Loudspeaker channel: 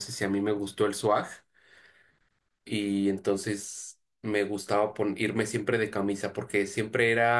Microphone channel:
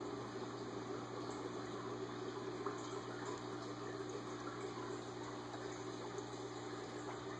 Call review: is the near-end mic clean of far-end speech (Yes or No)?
Yes